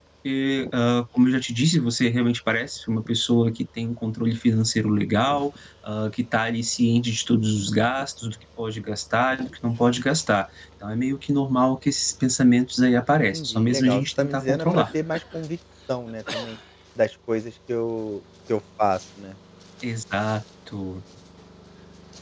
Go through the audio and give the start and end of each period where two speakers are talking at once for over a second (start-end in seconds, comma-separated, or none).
13.3-14.8